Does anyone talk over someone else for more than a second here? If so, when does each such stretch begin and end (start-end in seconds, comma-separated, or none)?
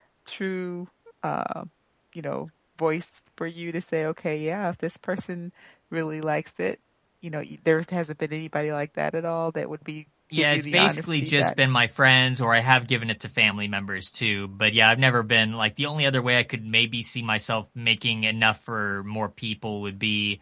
10.4-11.6